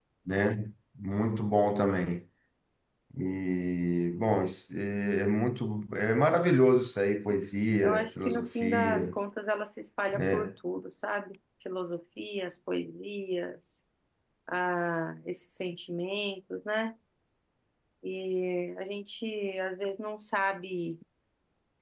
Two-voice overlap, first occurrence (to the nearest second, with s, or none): 8 s